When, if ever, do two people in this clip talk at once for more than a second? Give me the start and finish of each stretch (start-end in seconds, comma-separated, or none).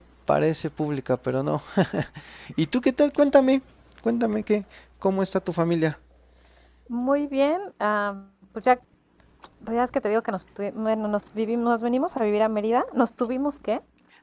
none